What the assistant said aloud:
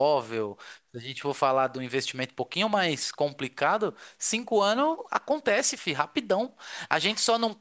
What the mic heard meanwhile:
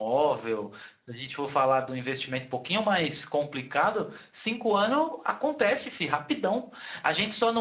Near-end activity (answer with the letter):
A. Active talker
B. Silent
B